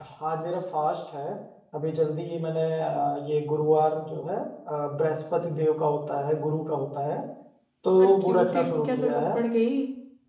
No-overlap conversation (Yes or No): No